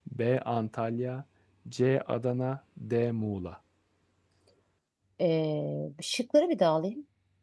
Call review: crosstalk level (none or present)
none